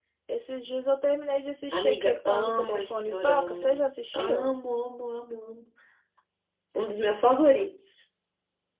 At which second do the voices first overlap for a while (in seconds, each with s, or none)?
1.7 s